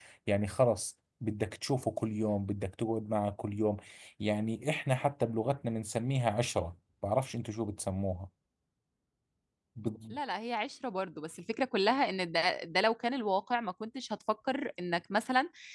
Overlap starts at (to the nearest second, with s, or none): none